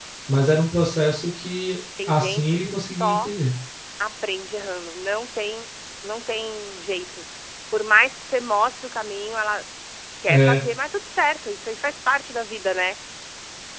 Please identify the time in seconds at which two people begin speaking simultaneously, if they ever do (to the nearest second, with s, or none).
2 s